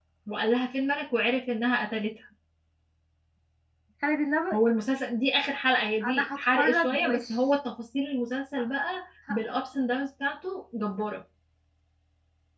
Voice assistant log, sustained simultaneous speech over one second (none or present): present